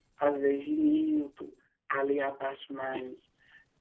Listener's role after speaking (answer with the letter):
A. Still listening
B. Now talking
A